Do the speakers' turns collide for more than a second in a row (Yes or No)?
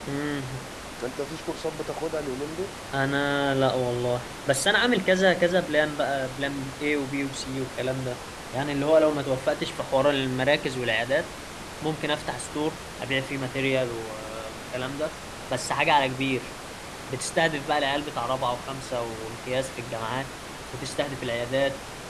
No